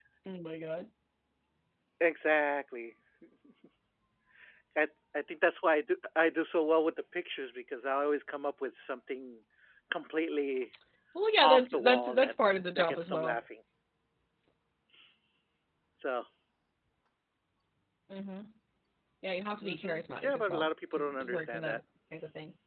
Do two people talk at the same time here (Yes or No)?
Yes